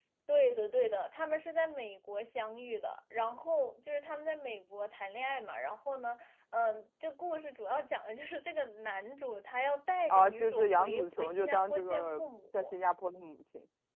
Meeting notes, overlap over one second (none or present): present